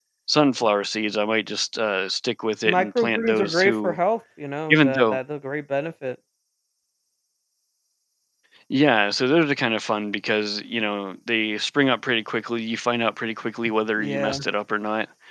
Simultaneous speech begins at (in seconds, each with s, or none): 2.7 s